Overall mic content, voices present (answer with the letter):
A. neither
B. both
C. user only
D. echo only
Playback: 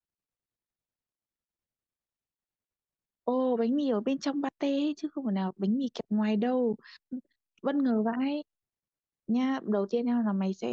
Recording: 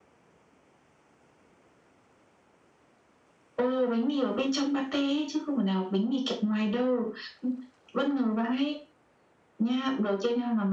D